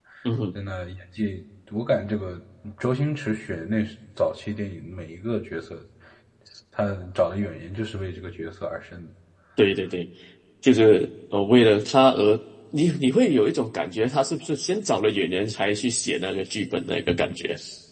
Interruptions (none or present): none